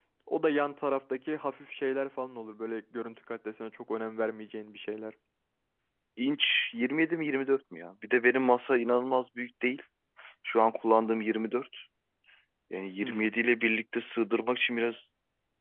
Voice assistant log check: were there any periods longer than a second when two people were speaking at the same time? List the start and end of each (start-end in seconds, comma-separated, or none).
none